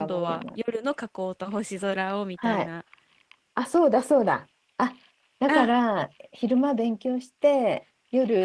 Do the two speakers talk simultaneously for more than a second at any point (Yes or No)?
No